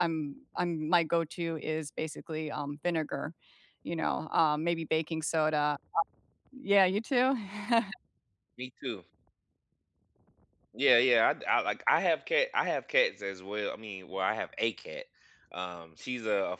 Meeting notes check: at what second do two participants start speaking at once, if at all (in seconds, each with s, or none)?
none